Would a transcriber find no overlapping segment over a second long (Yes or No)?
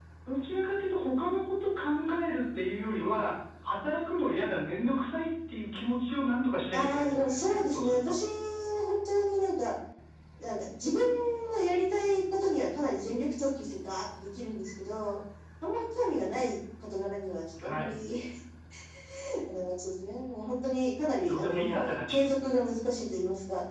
No